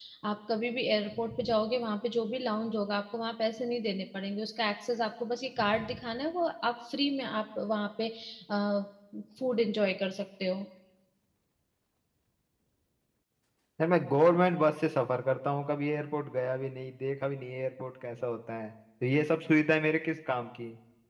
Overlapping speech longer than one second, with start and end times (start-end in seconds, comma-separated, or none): none